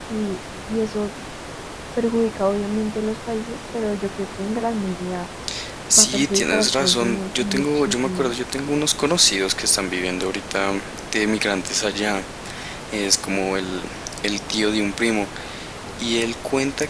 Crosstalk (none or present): present